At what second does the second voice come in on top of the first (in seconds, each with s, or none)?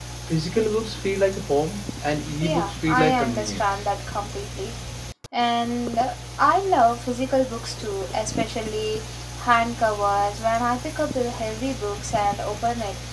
2.4 s